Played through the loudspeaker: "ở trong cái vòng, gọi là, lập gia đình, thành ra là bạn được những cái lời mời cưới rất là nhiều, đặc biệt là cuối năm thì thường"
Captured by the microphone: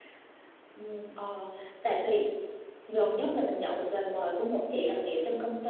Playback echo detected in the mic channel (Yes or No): No